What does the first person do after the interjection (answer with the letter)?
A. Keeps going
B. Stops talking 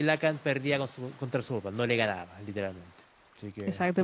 B